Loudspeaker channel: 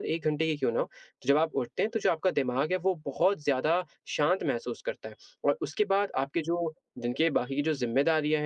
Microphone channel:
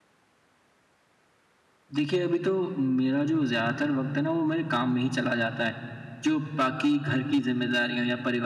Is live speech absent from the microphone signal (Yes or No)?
No